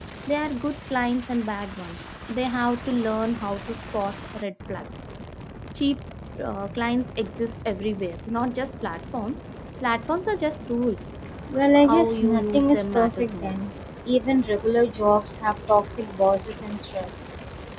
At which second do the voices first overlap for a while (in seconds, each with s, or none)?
11.8 s